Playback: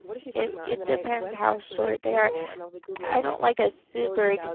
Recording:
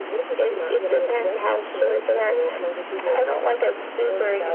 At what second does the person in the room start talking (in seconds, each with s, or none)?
none